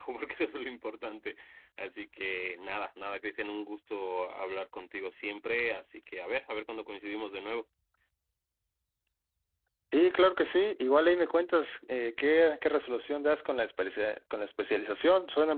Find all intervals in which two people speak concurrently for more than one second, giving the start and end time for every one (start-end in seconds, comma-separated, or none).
none